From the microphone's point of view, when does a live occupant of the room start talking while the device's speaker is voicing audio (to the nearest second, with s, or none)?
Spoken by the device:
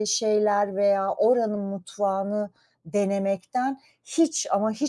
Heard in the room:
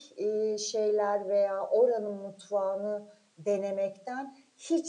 none